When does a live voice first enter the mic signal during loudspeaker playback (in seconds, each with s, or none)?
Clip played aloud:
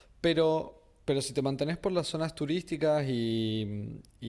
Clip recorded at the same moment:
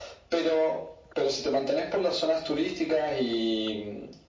none